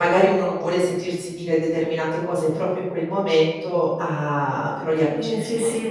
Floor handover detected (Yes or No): Yes